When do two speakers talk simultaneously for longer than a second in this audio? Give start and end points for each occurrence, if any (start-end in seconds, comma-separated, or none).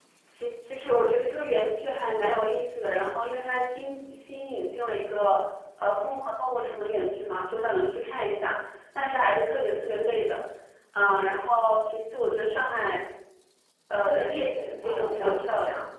14.1-15.4